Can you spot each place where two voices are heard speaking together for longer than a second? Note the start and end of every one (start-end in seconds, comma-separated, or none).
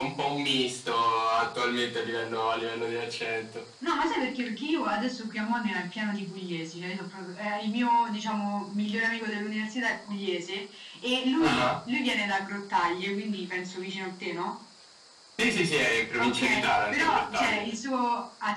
16.2-17.6